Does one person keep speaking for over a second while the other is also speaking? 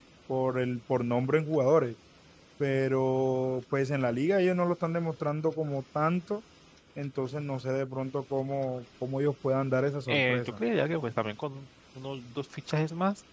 No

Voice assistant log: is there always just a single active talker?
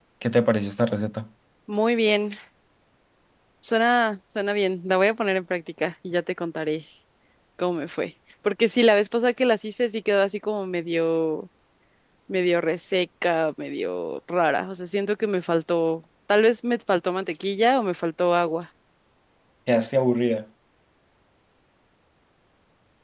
Yes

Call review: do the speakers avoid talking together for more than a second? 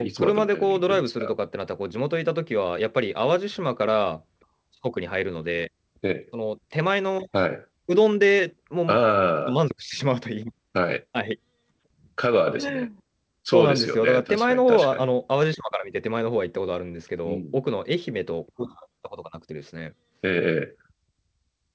No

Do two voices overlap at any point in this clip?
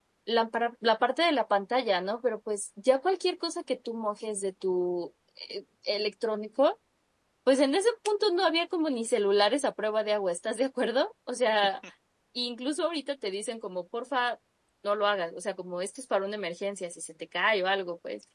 No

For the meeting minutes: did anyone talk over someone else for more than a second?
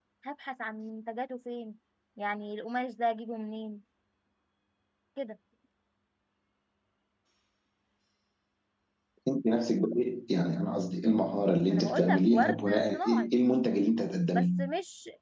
Yes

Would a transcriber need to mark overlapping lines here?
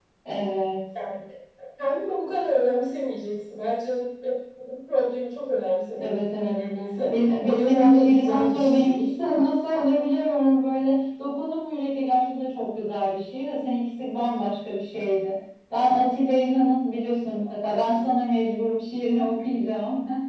Yes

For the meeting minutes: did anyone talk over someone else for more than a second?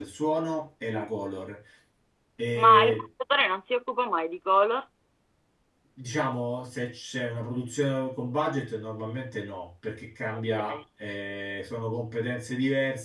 No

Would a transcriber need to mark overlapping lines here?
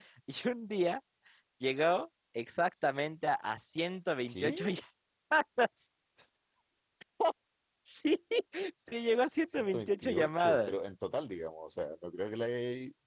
Yes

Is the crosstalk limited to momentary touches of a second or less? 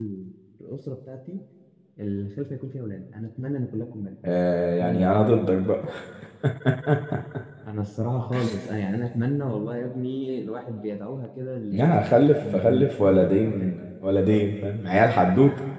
No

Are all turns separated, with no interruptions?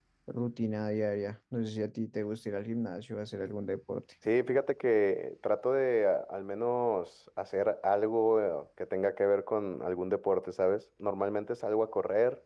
Yes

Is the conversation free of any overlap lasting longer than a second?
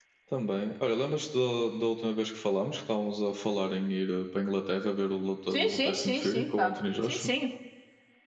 No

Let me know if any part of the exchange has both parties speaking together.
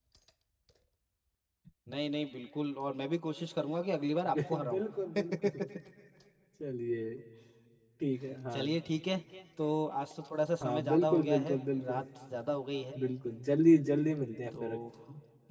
Yes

